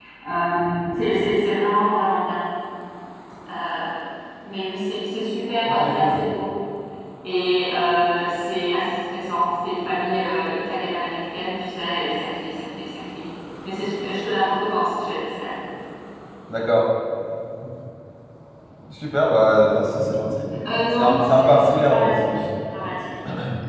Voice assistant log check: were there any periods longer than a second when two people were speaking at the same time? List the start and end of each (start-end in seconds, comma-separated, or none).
21.0-22.4